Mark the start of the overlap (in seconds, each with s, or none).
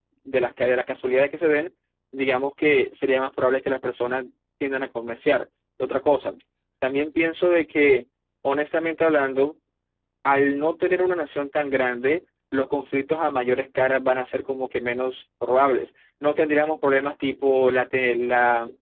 none